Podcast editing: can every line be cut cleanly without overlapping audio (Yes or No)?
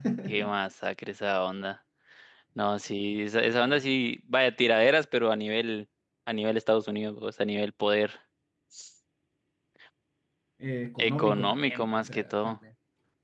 No